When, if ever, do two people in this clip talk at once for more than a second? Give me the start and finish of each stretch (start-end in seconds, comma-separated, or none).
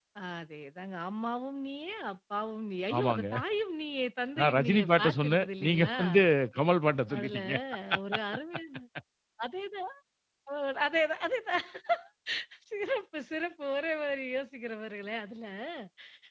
4.4-6.0